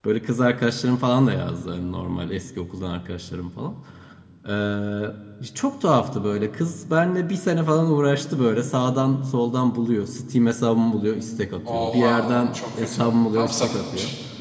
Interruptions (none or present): present